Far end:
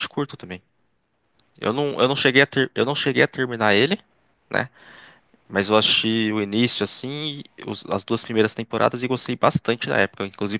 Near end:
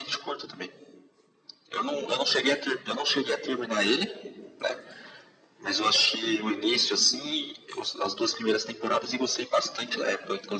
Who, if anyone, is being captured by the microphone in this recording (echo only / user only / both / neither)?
echo only